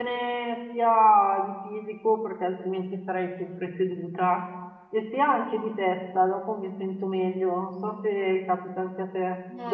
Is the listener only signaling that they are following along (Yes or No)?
No